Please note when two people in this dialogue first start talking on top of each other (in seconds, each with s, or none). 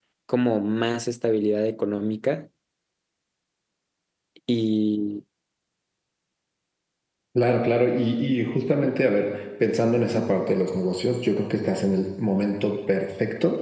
none